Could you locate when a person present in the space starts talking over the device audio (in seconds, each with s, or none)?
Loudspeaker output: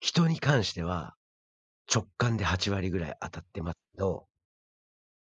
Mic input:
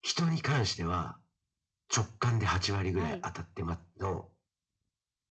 3.0 s